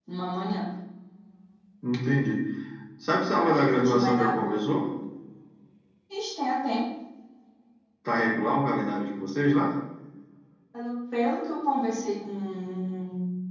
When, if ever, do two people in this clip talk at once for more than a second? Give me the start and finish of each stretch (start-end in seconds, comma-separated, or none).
3.4-4.6